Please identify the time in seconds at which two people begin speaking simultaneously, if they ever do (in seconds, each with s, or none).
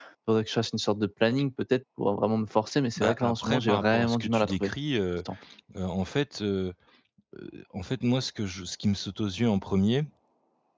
3.0 s